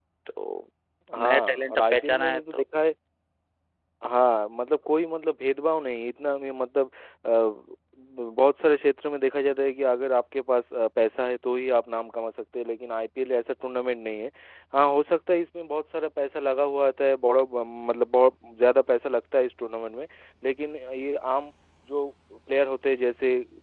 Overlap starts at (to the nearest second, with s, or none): 1 s